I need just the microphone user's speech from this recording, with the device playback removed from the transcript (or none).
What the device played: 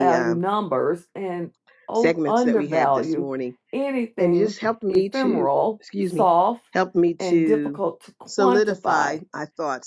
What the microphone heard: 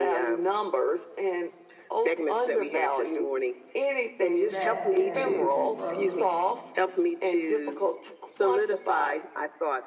that can keep us